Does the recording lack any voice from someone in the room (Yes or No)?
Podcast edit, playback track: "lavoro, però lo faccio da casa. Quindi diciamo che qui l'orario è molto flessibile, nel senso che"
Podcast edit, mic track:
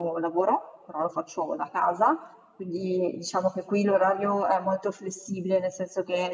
Yes